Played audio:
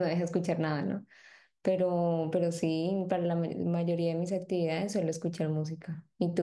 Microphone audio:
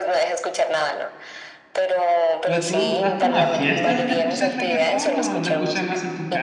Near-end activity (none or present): present